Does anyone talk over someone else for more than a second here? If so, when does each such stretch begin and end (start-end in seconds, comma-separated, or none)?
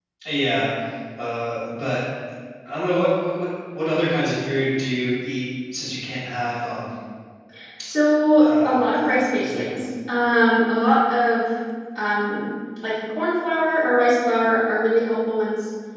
8.4-9.8